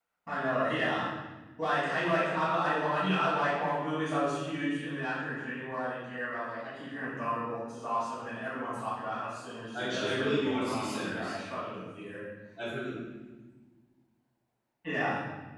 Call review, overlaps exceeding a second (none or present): present